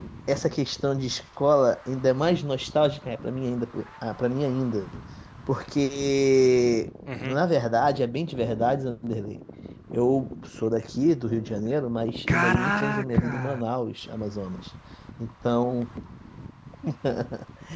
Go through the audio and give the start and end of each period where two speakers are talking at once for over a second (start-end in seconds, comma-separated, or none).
12.3-13.6